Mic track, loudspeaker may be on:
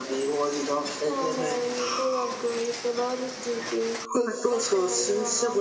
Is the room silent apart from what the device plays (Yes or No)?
Yes